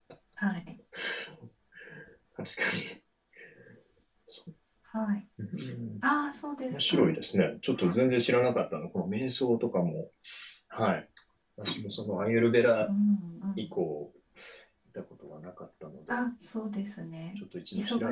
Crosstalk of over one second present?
No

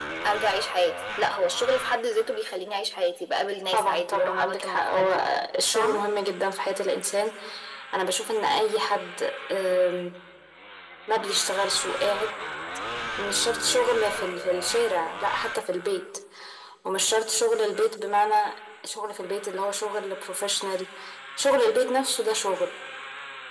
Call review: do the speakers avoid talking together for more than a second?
No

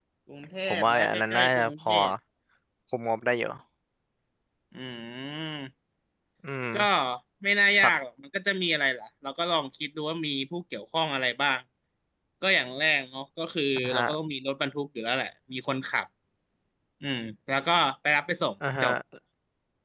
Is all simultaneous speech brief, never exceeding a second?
No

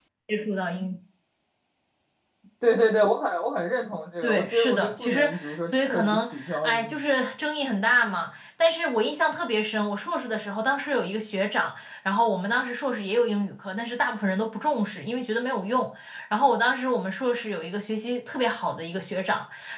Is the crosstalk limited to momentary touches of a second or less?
No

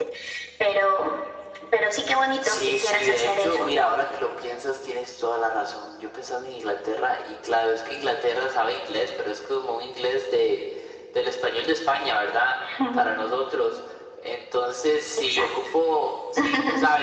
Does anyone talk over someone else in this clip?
Yes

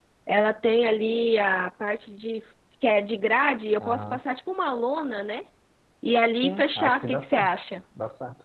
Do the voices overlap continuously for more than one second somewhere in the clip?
Yes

